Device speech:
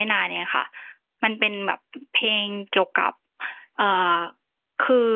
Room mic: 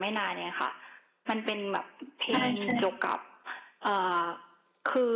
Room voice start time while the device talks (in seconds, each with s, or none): 2.3 s